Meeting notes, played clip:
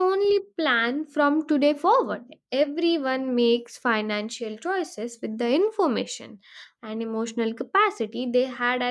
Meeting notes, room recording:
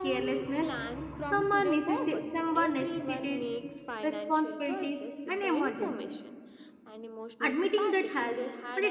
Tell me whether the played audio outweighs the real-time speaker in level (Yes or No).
No